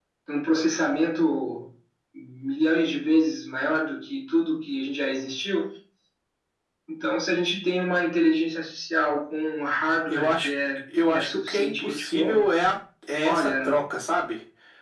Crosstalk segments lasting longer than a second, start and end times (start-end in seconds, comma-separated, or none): 11.0-12.5